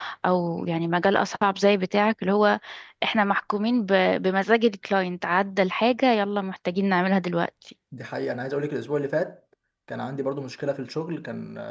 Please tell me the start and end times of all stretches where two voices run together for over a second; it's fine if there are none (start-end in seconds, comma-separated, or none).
none